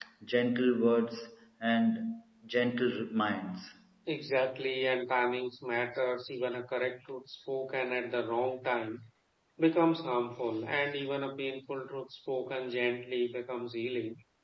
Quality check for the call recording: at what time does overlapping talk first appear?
none

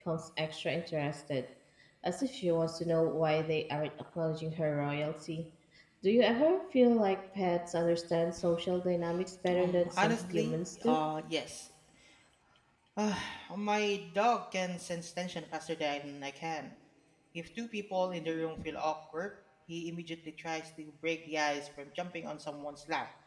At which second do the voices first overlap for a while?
9.5 s

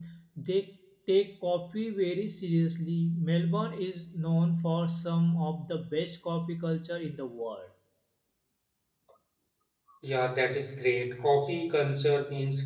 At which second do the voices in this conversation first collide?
none

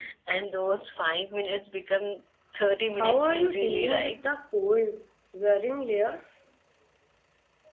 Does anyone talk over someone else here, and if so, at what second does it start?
2.9 s

